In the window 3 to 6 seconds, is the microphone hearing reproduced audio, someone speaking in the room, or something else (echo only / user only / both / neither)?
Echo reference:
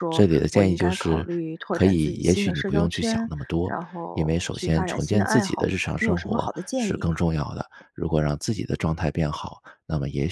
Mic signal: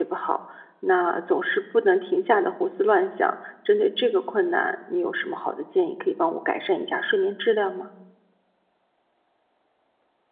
user only